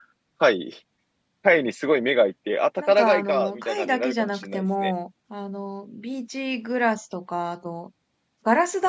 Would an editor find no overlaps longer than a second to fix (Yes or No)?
No